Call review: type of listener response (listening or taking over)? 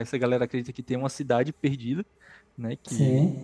listening